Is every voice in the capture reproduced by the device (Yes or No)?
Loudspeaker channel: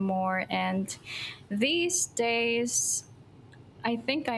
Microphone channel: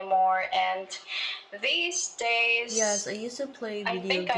No